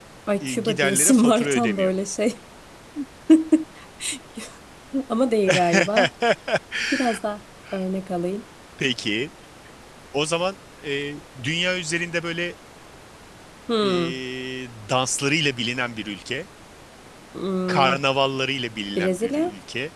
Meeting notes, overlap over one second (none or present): present